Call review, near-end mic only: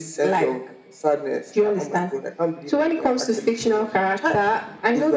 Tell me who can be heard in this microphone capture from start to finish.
echo only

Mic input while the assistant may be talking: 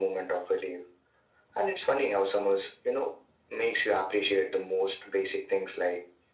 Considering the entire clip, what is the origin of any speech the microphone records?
echo only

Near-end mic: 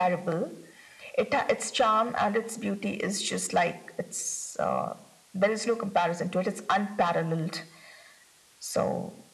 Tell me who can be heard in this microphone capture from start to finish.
echo only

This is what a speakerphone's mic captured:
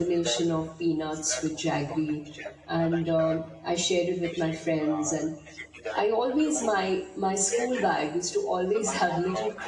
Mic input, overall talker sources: both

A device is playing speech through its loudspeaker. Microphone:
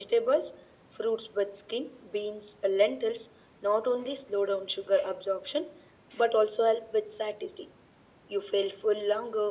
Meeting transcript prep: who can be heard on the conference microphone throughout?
echo only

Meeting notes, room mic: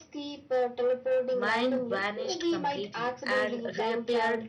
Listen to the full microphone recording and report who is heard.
both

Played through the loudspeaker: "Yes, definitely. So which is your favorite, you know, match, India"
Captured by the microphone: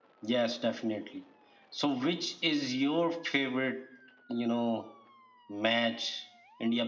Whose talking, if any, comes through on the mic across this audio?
echo only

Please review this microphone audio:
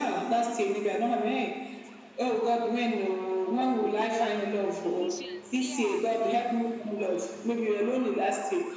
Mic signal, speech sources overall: both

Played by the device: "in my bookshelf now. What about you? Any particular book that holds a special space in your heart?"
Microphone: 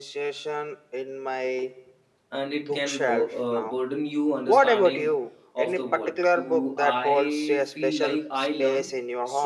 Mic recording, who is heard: both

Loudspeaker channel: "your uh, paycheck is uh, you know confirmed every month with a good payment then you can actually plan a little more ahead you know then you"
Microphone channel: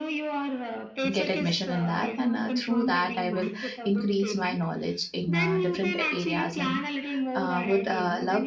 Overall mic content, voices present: both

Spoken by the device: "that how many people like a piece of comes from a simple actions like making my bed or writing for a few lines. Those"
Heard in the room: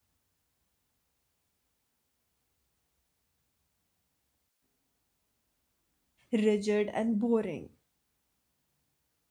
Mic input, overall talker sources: user only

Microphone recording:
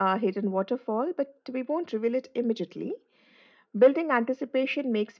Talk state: echo only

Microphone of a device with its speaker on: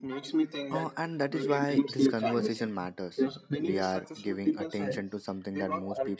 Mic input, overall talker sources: both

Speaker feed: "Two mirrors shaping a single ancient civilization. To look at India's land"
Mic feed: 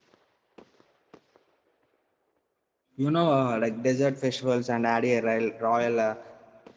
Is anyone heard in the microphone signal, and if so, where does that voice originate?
user only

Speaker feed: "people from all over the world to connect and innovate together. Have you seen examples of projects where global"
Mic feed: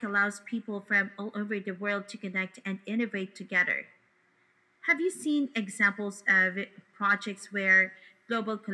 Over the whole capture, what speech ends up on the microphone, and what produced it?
echo only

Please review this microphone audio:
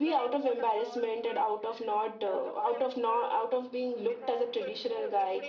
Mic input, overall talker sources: both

